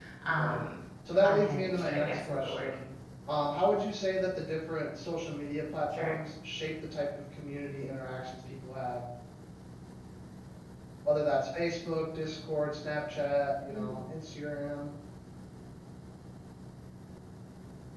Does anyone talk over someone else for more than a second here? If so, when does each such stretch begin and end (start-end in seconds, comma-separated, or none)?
1.2-2.7